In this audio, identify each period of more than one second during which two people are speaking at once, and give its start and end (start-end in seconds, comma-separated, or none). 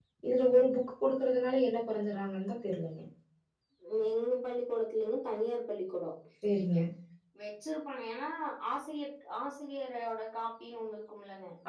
none